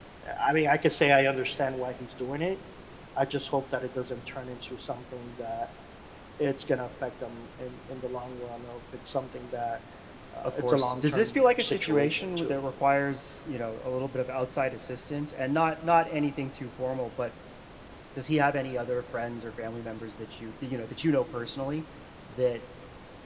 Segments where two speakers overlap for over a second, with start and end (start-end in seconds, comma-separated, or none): 10.6-12.6